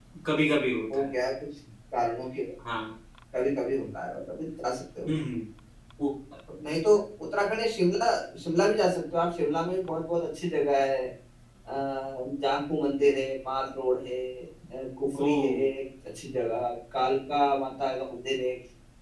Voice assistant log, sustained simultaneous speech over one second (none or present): none